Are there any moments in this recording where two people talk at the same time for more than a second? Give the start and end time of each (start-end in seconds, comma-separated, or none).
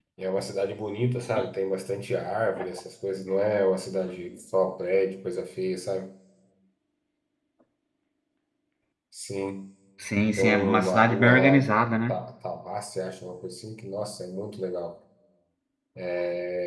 10.4-11.7